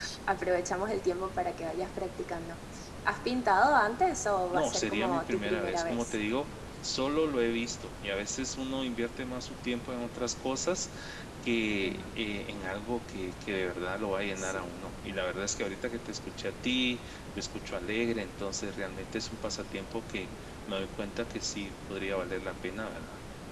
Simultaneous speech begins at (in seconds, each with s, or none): 4.5 s